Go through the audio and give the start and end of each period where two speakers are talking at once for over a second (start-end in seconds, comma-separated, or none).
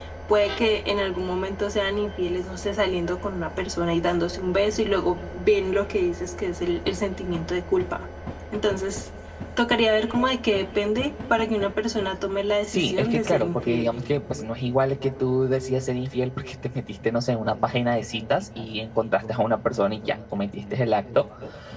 12.6-13.9